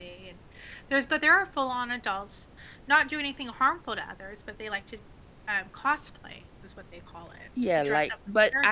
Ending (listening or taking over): taking over